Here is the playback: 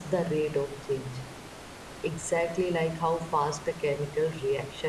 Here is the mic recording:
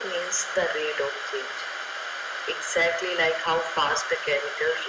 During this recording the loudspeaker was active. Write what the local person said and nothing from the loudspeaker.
none

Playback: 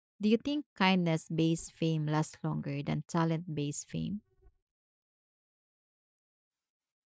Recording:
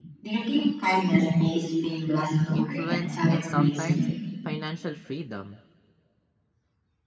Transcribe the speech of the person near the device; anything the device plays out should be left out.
influence, and sometimes financial freedom.

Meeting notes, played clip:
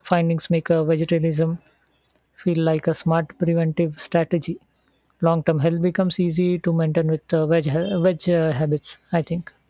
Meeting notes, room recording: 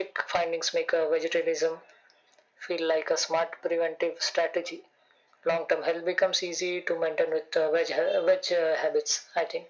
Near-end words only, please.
none

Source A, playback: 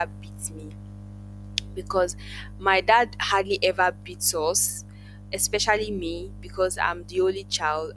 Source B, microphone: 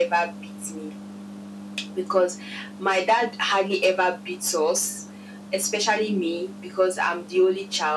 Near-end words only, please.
none

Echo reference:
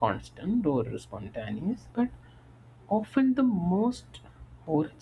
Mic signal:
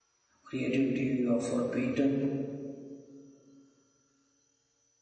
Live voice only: creativity uh, for a painter

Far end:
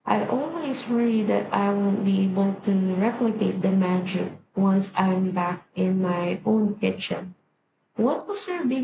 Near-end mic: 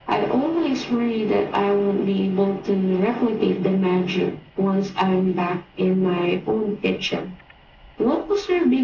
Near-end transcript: none

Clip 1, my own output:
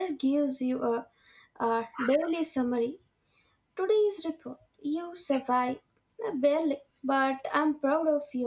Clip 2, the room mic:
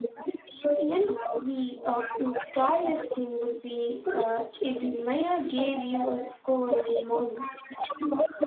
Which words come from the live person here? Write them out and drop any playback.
You know, the uh, scariest thing would be uh, if the mirror gave you a score every morning.

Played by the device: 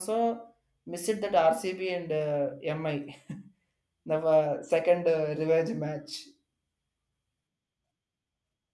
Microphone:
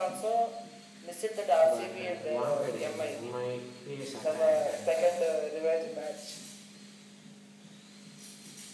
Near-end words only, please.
but at Wankhede, MI pace attack and uh,

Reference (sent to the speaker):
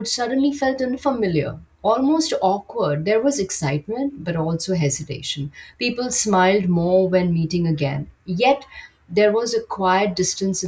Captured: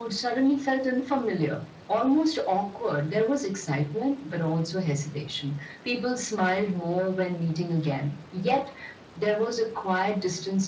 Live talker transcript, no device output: none

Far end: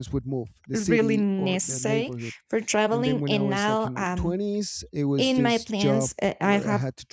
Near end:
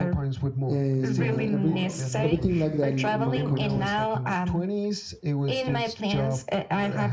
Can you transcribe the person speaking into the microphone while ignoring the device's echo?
and uh, every everything like that in my, in my country.

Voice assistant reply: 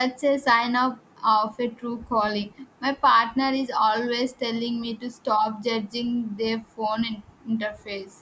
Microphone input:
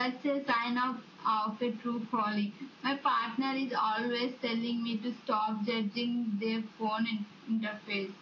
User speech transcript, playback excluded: none

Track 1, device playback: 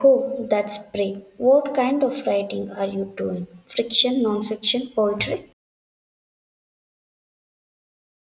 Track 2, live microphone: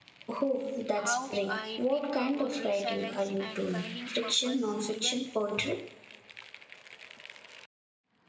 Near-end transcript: how I think about resilience and finding purpose even

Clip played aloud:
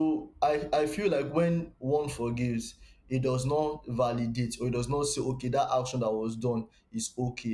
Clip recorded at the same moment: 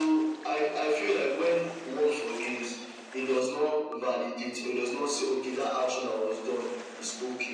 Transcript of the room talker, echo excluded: none

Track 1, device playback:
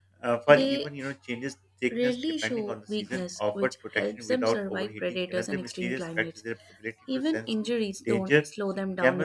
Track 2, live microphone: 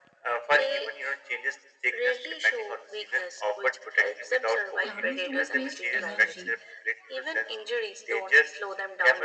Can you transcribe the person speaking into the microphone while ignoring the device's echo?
camels don't waste energy

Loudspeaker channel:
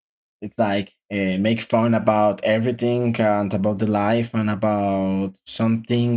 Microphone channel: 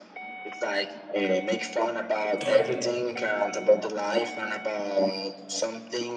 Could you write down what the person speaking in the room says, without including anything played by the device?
Okay.

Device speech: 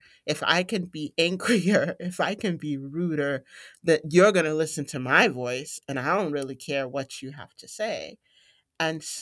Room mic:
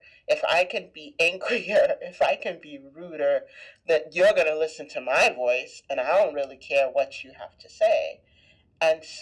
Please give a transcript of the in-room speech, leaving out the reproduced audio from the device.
none

